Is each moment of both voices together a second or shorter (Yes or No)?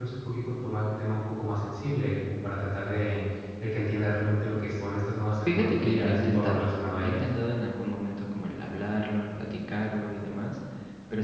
No